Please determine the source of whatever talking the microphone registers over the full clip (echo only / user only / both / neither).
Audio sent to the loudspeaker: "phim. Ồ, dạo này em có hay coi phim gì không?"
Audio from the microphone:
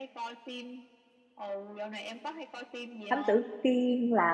both